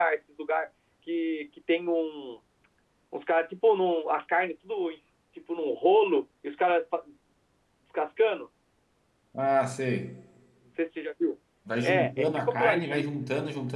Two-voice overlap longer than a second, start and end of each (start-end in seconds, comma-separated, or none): 11.8-13.0